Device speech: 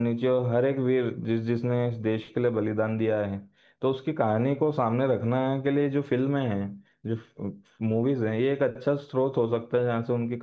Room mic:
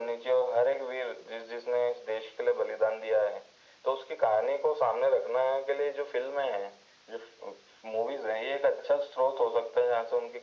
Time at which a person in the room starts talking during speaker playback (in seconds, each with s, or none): none